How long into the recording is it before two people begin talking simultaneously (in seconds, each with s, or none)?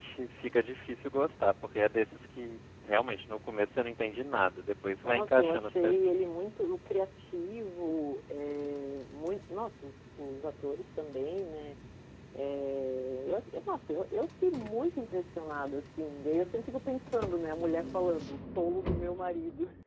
5.0 s